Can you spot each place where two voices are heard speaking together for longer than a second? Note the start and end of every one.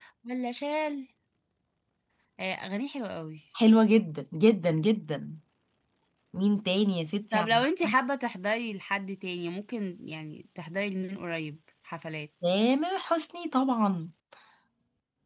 none

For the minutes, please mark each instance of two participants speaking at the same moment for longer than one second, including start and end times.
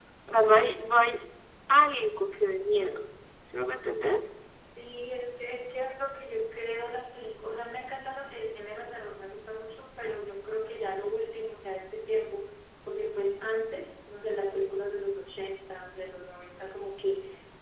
none

